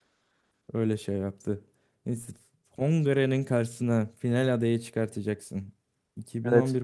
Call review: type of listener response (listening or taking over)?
listening